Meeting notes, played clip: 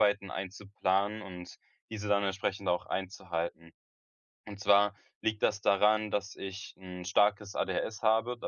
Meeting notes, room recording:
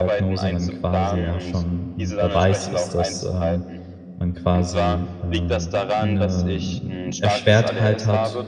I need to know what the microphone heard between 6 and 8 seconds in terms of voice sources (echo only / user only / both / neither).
both